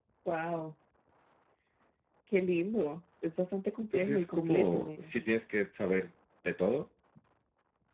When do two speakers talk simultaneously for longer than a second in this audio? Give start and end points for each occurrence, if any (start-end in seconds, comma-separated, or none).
3.9-5.2